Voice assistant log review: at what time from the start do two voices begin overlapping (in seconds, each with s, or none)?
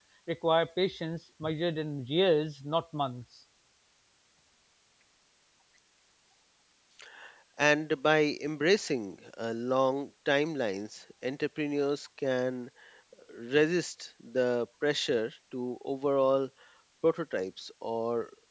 none